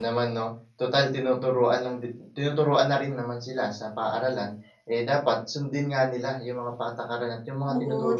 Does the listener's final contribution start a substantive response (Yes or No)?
Yes